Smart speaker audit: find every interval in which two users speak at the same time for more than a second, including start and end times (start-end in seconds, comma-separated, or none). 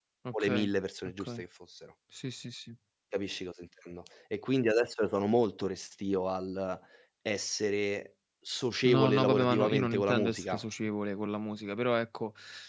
8.8-10.6